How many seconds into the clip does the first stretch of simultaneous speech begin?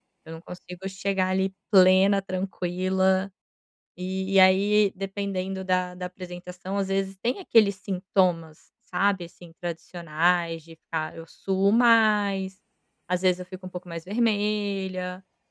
none

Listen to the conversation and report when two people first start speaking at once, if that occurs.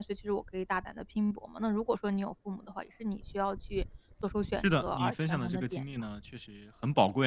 4.6 s

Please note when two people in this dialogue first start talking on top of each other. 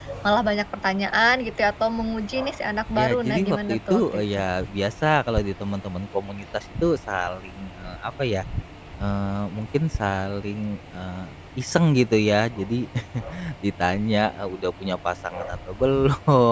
3.0 s

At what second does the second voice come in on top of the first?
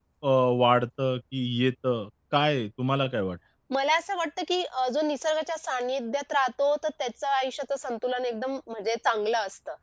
none

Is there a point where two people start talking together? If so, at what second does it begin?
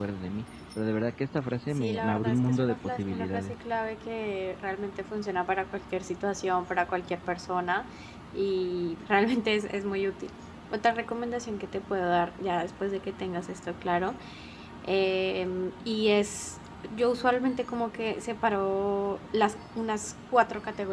1.8 s

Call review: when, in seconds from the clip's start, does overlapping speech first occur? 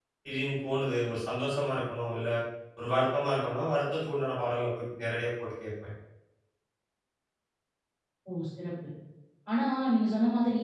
none

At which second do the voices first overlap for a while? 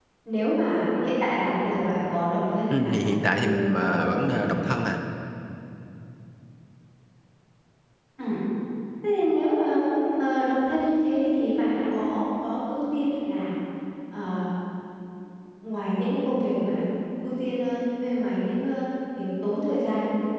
2.7 s

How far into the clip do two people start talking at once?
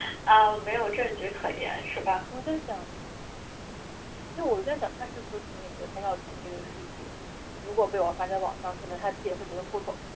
none

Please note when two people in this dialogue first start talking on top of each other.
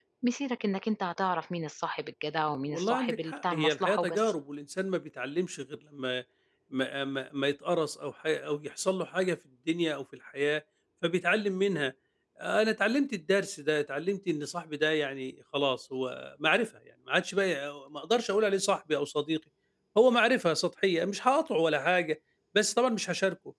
2.7 s

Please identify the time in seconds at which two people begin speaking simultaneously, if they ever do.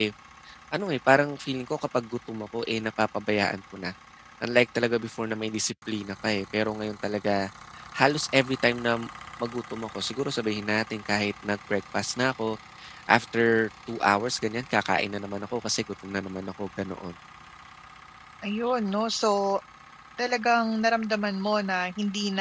none

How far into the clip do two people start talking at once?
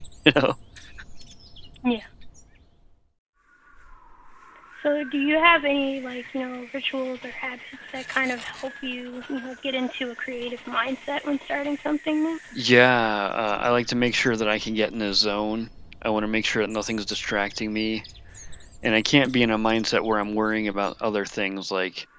none

